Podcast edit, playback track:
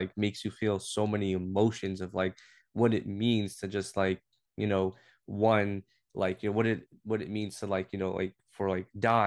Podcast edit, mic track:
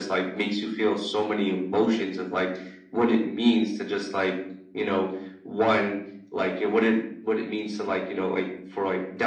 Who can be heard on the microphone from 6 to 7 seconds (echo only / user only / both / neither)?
echo only